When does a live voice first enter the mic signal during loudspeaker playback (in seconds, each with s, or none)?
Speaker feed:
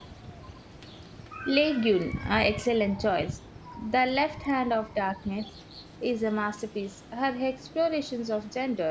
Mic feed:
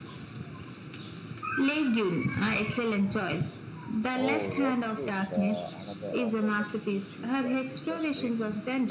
4.1 s